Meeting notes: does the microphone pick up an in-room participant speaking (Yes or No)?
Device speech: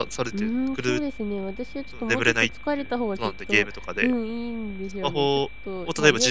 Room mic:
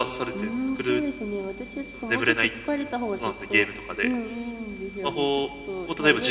No